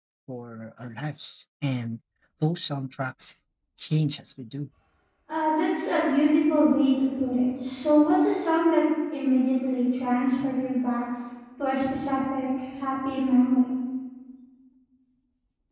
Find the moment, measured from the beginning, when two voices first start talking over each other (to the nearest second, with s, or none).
none